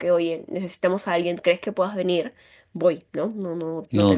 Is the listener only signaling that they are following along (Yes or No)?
Yes